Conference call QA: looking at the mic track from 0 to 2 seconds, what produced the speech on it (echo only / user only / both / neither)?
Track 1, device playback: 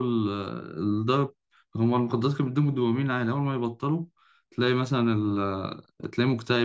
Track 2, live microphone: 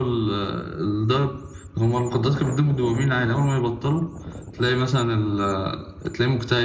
echo only